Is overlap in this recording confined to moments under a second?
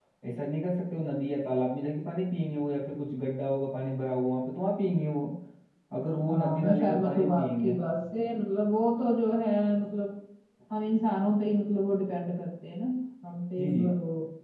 No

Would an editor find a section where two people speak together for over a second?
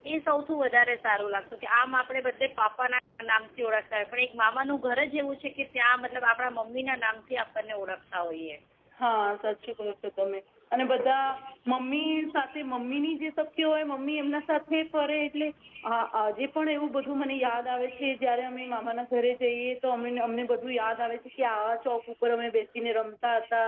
No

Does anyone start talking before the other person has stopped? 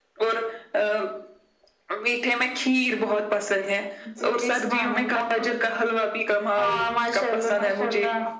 Yes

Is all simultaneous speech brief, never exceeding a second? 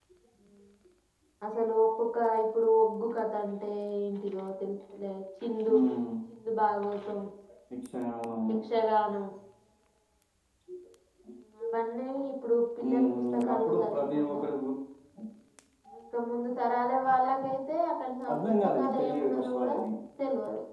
No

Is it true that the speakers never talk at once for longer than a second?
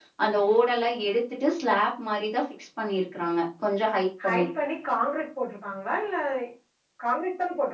Yes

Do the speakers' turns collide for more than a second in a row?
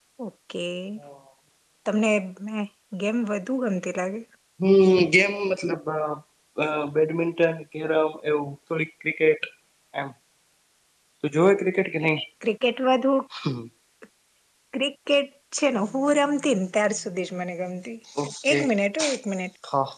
No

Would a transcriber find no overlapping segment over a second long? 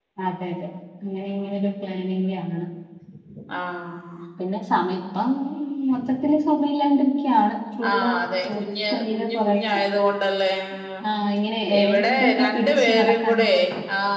No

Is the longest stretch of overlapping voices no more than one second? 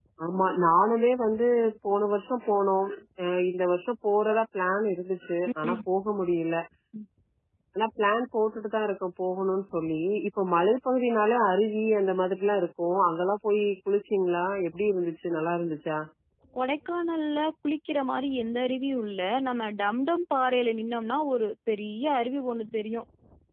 Yes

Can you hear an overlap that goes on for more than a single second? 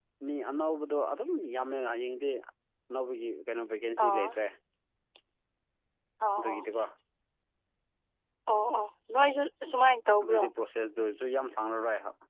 No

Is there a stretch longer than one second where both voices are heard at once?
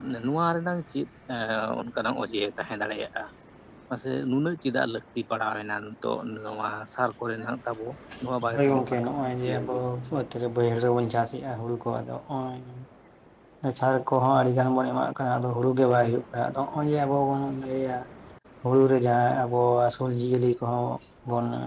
Yes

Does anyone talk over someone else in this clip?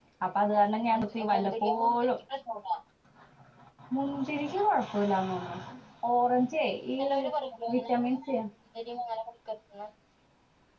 Yes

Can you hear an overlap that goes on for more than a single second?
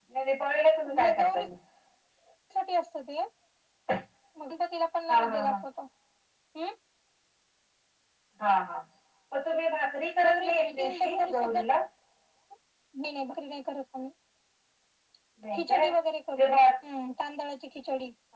Yes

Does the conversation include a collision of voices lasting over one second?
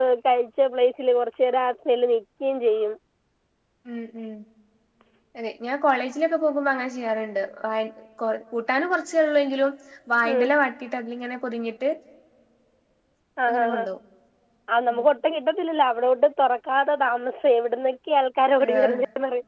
No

